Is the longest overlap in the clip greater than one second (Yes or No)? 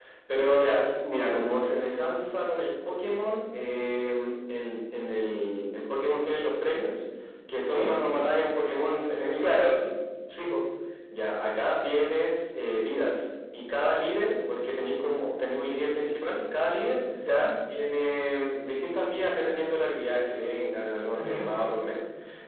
No